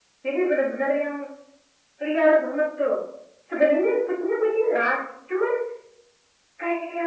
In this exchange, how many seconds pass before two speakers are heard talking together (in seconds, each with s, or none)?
none